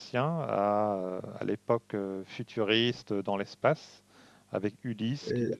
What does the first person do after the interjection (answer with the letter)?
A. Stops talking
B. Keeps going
B